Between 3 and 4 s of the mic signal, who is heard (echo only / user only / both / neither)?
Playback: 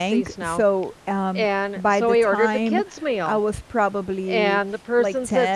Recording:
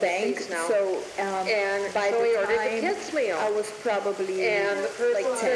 echo only